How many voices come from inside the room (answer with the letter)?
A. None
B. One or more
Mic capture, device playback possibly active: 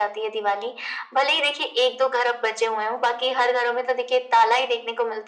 A